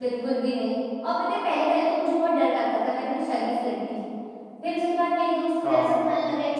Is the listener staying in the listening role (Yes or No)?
Yes